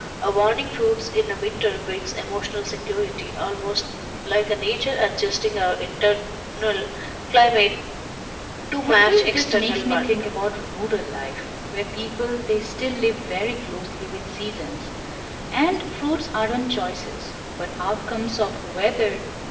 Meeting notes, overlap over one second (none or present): present